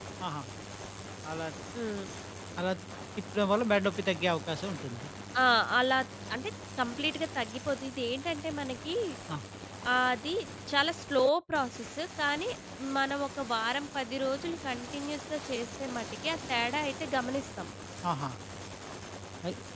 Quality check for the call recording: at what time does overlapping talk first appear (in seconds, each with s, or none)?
none